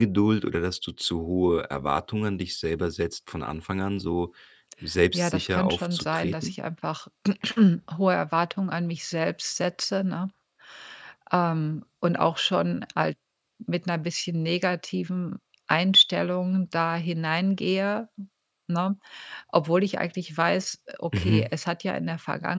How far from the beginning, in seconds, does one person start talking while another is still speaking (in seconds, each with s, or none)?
5.1 s